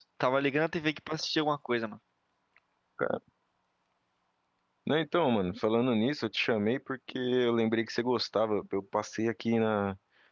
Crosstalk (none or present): none